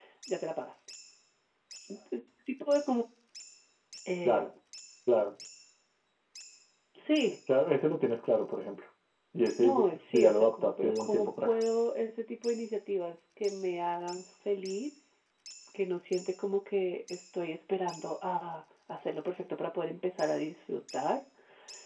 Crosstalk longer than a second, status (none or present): present